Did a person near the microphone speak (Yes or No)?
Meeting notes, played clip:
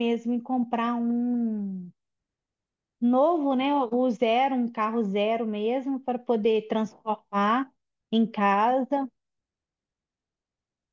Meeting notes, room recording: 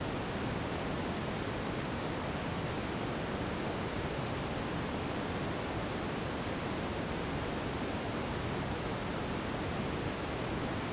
No